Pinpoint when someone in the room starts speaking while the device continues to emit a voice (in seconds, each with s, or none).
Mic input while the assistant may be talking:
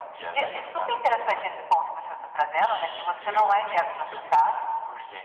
none